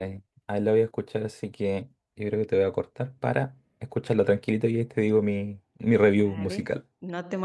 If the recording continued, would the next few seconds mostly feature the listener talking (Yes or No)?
Yes